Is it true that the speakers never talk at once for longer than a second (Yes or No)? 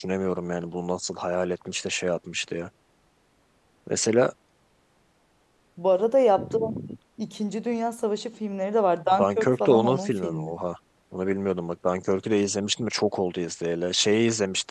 No